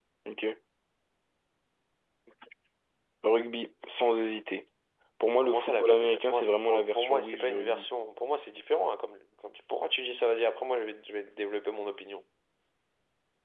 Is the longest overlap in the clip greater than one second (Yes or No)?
Yes